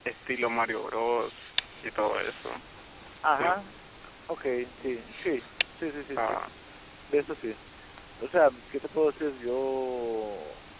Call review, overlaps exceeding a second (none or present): none